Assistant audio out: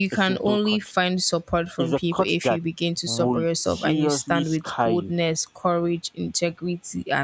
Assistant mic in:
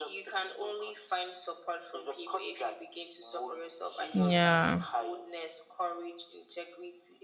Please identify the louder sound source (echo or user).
user